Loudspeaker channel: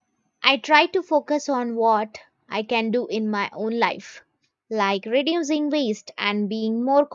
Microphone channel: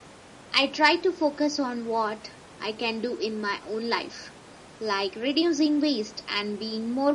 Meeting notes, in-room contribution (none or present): none